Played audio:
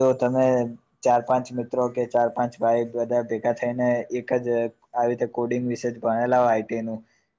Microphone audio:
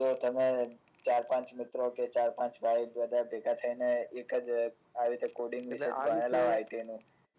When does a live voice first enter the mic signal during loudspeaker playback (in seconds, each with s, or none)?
5.7 s